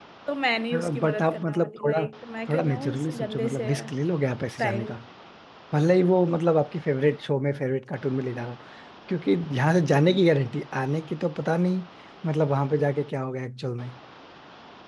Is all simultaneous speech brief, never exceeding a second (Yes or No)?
No